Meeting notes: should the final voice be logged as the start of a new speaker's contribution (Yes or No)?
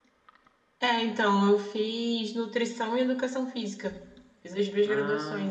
No